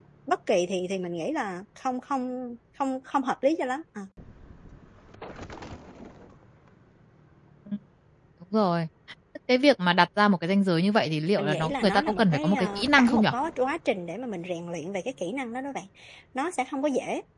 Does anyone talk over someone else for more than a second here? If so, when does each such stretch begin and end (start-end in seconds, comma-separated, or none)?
11.4-13.2